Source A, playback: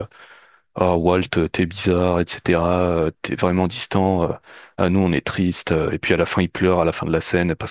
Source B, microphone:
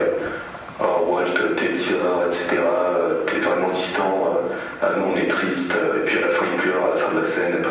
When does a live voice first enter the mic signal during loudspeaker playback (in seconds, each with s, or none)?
none